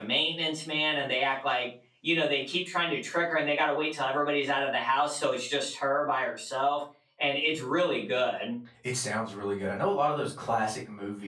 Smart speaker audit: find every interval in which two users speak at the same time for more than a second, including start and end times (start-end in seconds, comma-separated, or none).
none